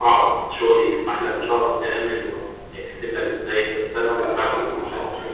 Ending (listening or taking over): taking over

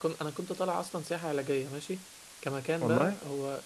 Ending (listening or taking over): listening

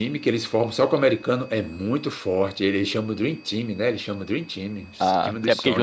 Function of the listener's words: taking over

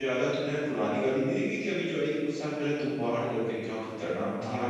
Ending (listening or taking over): taking over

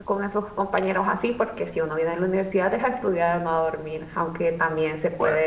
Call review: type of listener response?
listening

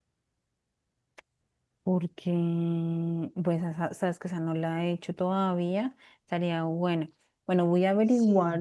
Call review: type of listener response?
listening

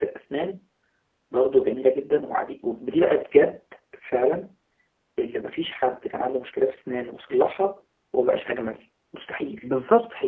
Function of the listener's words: taking over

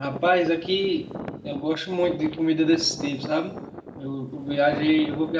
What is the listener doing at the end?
listening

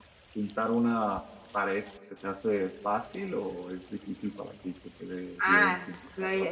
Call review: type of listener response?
taking over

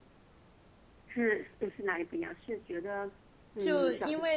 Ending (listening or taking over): taking over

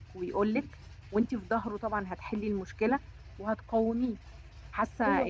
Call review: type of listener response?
listening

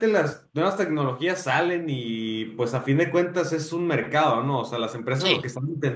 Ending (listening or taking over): listening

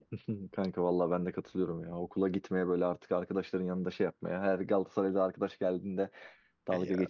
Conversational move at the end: listening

